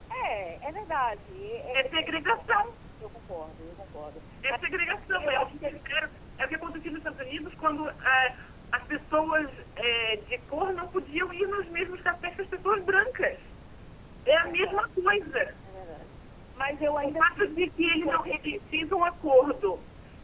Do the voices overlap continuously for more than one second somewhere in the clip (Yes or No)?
Yes